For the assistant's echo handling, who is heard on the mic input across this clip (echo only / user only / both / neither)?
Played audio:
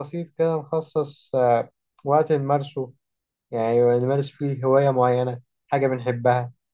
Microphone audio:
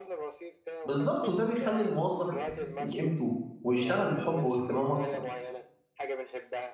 both